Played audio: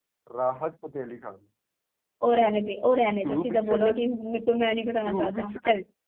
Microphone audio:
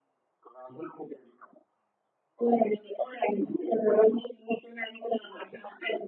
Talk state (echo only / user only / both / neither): echo only